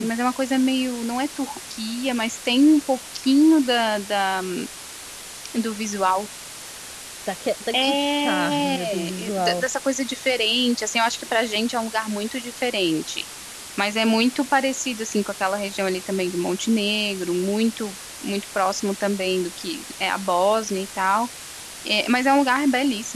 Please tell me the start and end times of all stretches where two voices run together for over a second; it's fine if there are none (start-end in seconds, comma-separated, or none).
7.7-9.6